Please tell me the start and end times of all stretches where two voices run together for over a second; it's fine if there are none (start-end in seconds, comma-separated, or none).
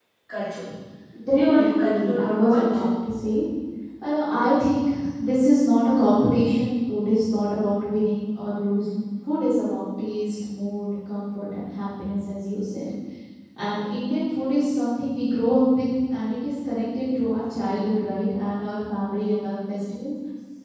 1.3-2.7